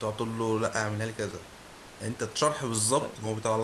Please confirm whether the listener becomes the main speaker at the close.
No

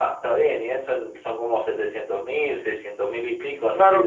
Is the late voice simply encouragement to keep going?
No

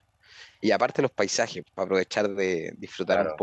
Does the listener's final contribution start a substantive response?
No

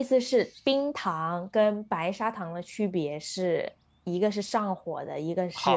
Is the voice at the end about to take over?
Yes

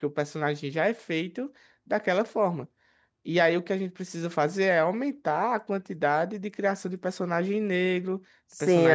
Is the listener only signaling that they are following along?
No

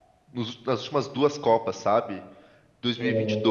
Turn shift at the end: No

